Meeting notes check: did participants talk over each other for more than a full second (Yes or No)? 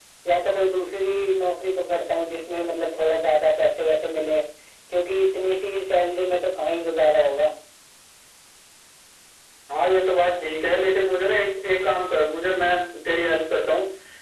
No